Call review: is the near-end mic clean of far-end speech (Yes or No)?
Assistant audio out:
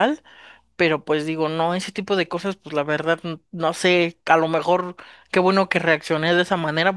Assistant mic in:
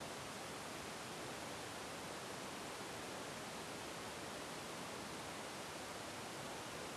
Yes